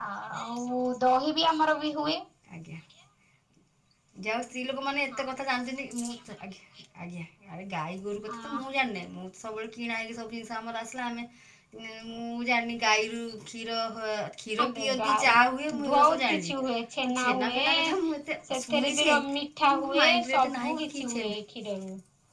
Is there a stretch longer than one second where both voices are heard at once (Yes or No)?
Yes